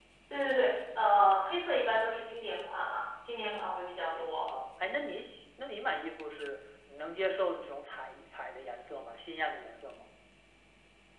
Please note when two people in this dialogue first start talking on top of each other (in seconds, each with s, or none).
none